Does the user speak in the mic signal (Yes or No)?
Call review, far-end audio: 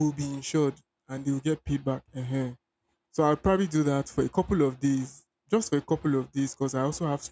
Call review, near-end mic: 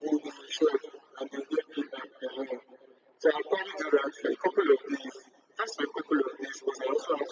No